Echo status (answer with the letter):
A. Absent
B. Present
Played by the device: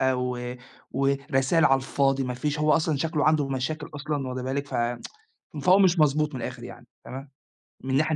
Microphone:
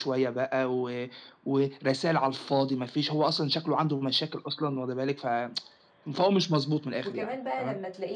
B